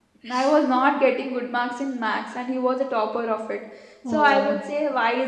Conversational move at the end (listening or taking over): listening